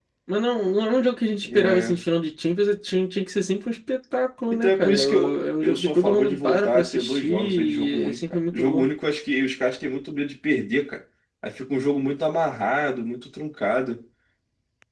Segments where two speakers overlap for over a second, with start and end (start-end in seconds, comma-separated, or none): 4.5-8.8